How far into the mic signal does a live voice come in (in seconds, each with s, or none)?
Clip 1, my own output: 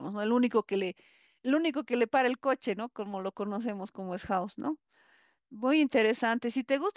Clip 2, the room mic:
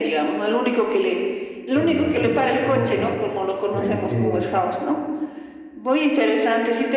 1.7 s